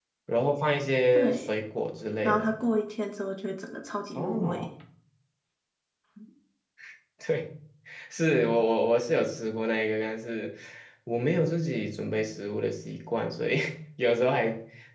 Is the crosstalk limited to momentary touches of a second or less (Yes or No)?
Yes